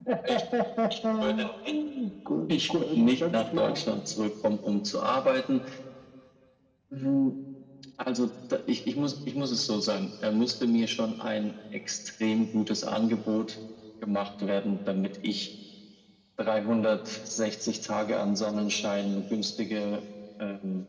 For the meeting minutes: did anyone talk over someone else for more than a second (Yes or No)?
Yes